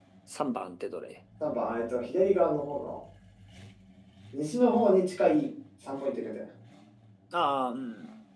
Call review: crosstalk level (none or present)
none